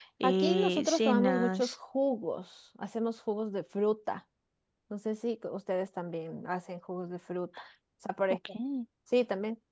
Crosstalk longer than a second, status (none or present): present